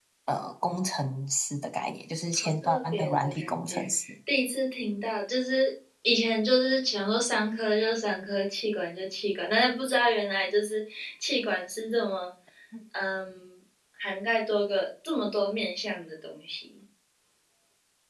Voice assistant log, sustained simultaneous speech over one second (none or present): present